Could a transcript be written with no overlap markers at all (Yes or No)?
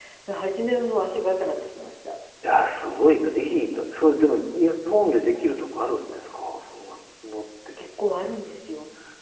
Yes